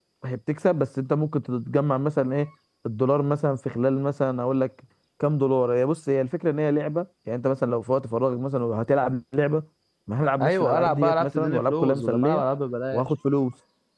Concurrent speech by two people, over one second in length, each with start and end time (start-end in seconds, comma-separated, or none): 10.4-12.4